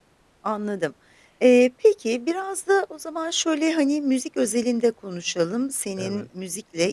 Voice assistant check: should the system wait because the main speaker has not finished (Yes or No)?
Yes